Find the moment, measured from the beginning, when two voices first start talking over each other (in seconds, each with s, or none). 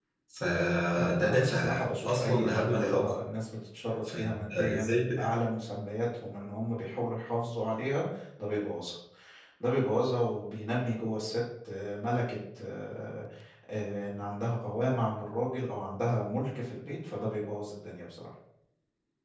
0.9 s